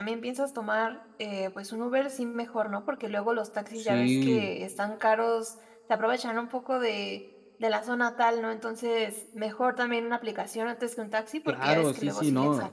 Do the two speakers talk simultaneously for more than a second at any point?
Yes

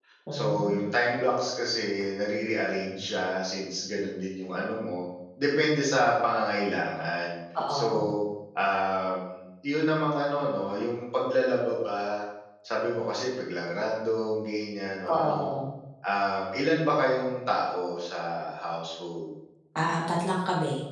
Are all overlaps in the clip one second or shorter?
Yes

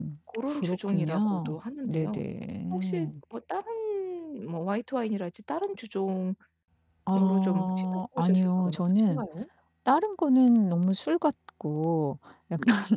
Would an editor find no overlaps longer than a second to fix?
No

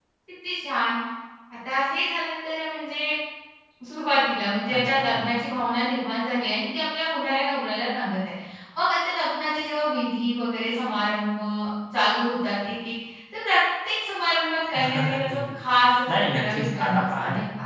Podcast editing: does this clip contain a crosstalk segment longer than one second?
Yes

